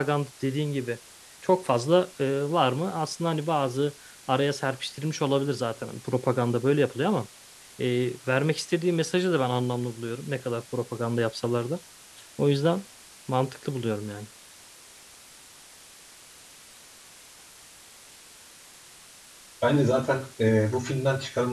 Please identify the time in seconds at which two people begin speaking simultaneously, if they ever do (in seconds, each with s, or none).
none